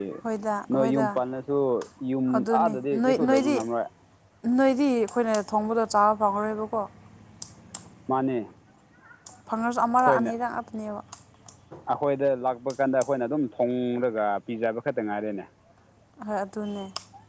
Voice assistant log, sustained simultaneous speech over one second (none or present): present